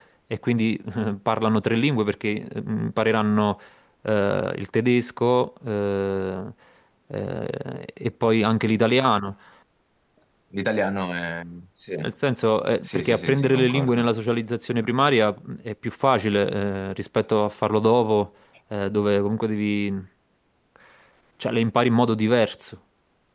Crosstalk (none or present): present